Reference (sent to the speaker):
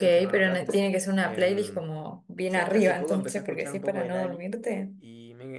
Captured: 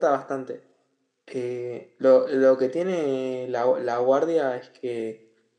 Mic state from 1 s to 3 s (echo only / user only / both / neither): user only